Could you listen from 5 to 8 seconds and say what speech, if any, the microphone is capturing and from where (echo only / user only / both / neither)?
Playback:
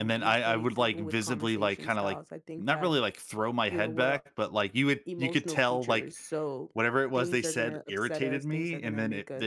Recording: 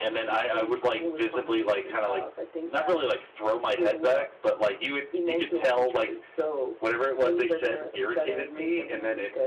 echo only